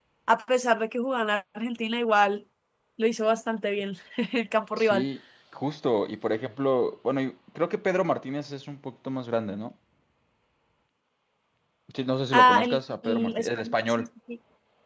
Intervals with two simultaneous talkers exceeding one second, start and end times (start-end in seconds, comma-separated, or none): 12.3-14.1